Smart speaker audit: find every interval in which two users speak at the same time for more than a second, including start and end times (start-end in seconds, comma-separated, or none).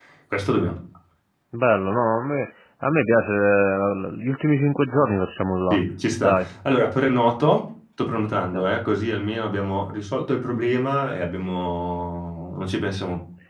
none